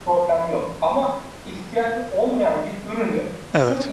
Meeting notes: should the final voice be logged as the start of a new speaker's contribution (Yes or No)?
No